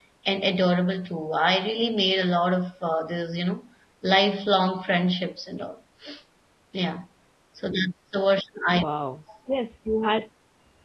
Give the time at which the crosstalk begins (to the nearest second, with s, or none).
none